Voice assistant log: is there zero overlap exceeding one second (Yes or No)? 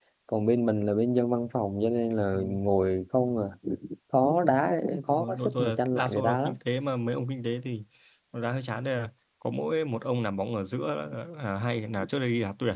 No